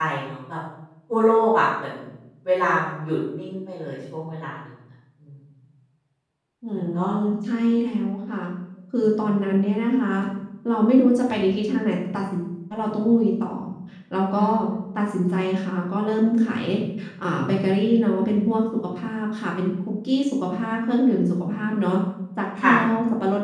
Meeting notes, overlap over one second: none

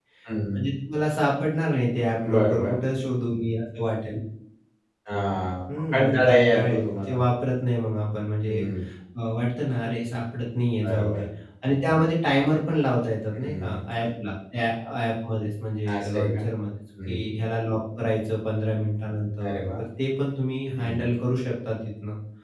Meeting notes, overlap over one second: present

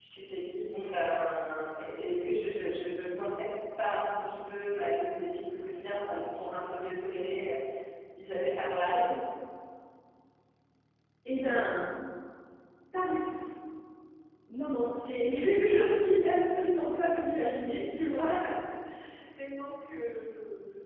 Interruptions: none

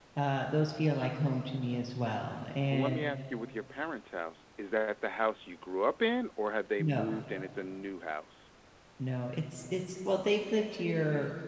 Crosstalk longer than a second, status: none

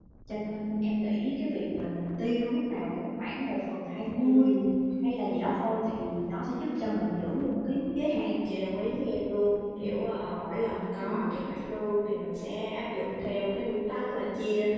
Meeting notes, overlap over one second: none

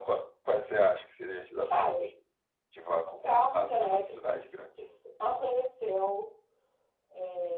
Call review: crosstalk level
present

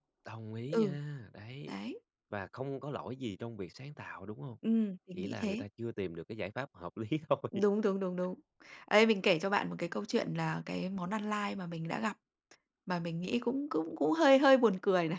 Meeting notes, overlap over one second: none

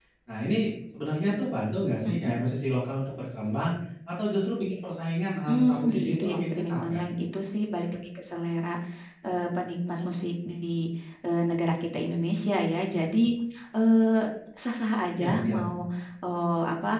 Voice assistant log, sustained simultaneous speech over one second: present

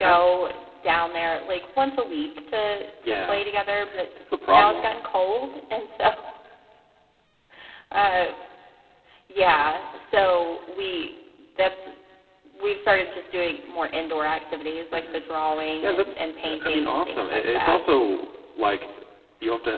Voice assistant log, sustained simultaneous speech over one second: present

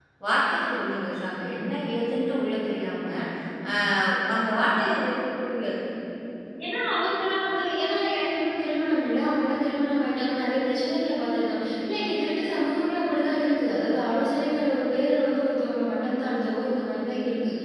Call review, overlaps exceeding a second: none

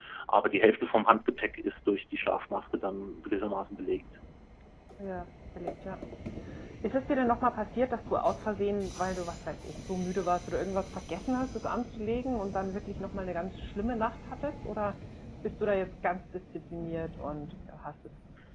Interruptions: none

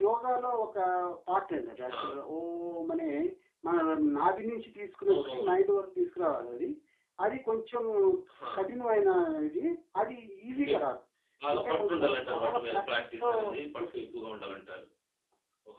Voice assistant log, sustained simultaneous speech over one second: present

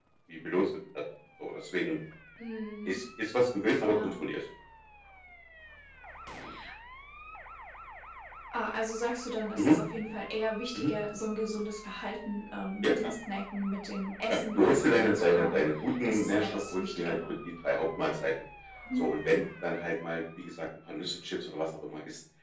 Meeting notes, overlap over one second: present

